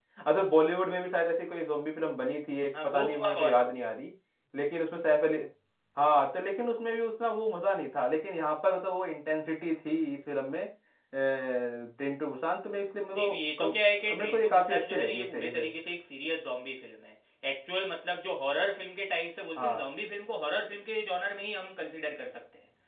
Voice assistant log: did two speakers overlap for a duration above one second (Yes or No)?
Yes